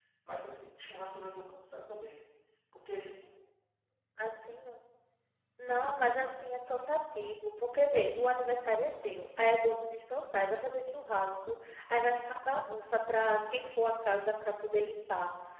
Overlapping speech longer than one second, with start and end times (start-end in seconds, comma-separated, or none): none